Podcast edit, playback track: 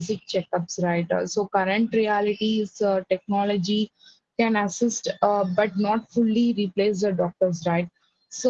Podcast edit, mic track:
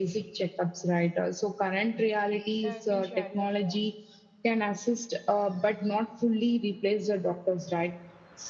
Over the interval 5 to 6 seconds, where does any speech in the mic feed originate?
echo only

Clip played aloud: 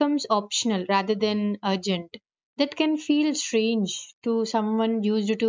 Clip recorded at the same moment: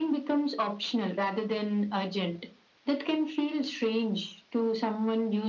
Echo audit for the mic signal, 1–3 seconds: echo only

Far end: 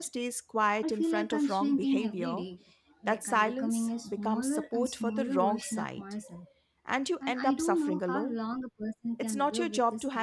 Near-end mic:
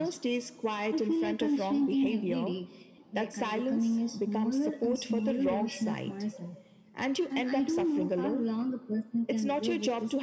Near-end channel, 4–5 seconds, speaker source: echo only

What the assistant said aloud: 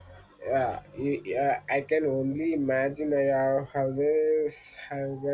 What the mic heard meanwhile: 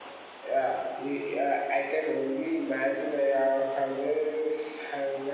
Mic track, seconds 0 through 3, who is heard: echo only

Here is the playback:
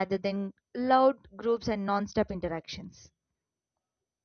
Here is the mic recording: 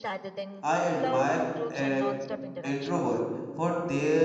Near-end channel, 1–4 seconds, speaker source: both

